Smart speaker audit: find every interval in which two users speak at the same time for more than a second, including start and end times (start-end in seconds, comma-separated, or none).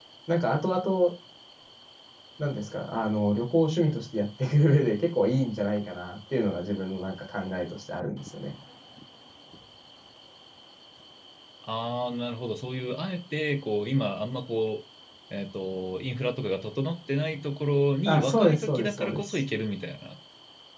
18.0-19.4